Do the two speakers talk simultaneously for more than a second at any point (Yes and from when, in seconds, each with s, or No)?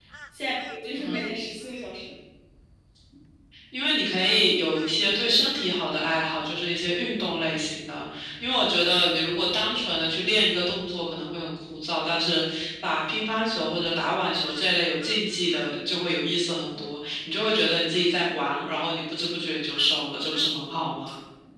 No